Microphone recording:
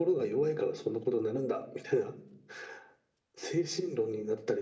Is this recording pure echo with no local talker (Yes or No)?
Yes